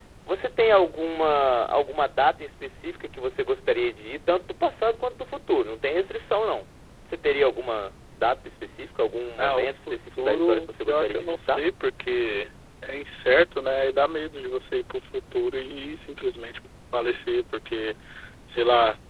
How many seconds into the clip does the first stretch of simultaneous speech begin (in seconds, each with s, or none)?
9.4 s